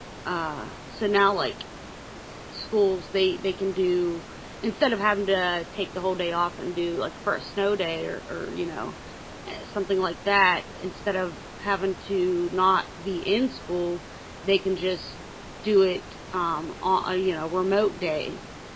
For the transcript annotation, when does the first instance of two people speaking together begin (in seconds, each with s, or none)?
none